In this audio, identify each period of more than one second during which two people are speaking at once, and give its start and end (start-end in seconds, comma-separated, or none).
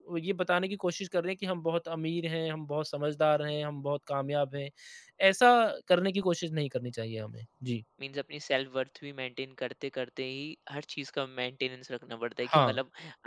none